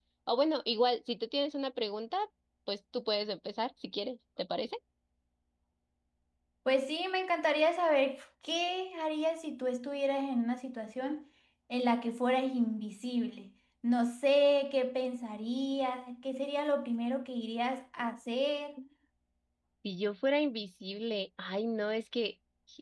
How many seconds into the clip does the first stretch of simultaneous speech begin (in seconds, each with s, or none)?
none